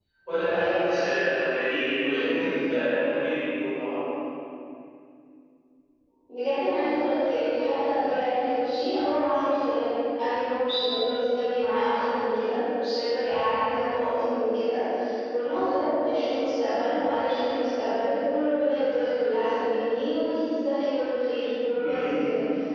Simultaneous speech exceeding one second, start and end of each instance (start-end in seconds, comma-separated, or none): none